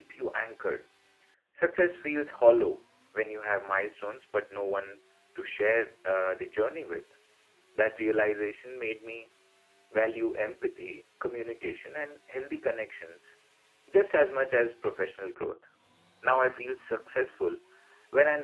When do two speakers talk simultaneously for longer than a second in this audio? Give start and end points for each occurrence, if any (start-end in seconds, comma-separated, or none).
none